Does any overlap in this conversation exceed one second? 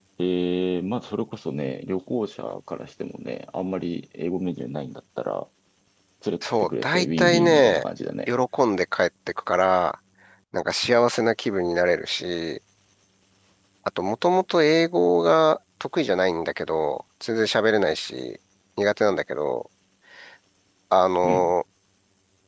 Yes, from 6.4 s

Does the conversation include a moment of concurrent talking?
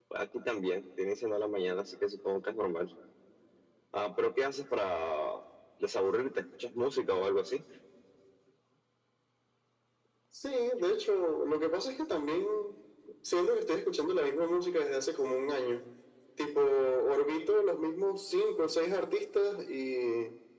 No

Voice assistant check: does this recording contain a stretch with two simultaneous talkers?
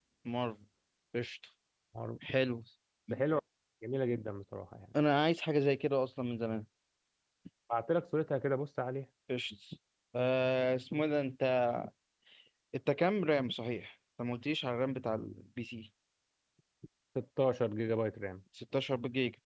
No

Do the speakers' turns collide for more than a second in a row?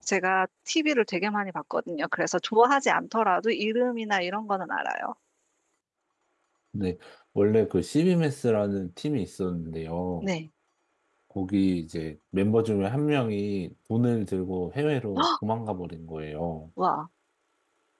No

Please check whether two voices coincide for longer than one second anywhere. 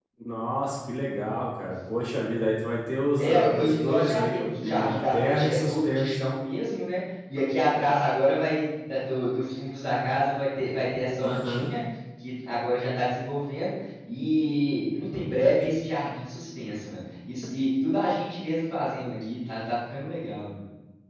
Yes, from 3.2 s

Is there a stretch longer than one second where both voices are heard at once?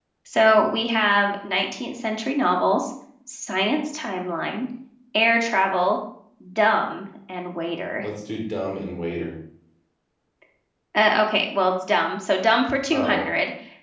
No

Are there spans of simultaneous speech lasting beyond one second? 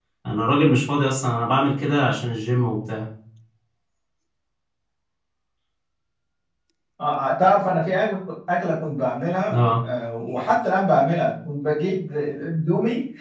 No

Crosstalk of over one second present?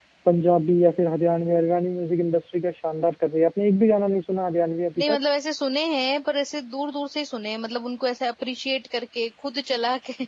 No

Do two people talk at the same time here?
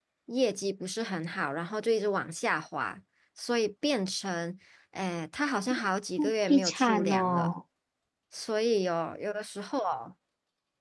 Yes, from 6.2 s

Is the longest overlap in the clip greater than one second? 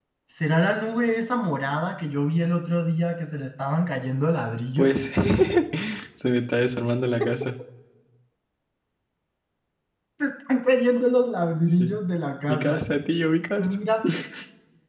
No

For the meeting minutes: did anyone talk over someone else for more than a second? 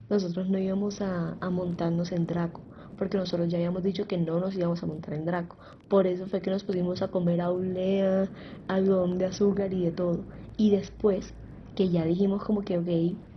No

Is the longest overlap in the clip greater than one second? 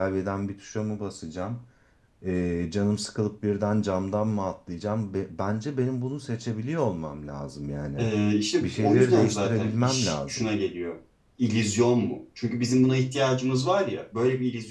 Yes, from 8.6 s

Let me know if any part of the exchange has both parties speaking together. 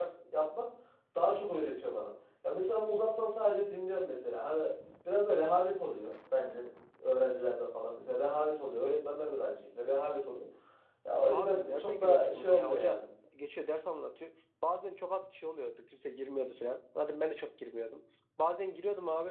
Yes, from 11.3 s

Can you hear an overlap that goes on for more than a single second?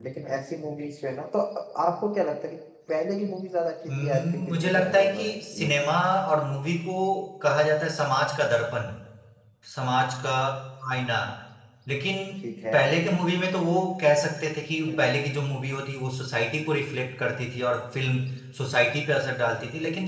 Yes, from 4.0 s

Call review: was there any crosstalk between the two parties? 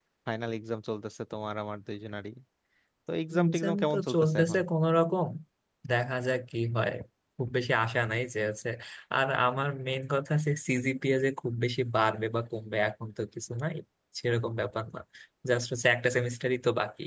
Yes, from 3.3 s

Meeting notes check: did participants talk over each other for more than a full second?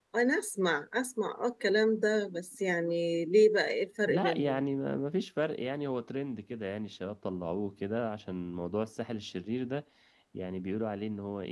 No

